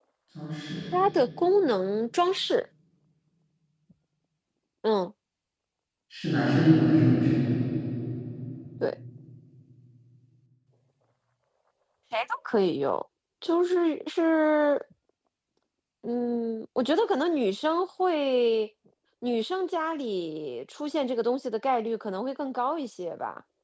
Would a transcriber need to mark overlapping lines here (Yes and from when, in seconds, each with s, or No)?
No